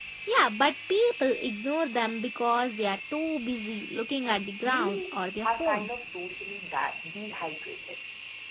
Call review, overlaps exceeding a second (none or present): present